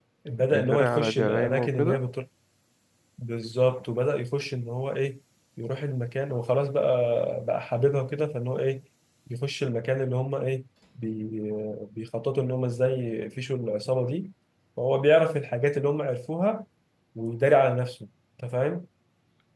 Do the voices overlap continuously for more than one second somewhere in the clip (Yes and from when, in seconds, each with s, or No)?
Yes, from 0.5 s